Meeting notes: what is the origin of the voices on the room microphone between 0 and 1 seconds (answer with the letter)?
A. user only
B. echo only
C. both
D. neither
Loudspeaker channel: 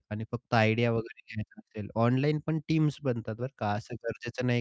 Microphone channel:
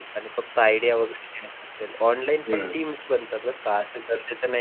B